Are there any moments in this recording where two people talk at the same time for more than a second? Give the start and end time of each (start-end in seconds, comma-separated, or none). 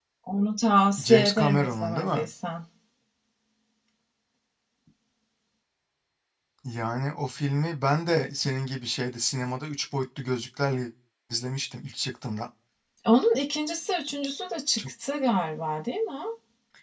1.0-2.3